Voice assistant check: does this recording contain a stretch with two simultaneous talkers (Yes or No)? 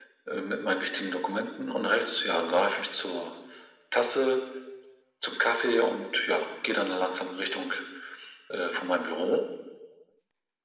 No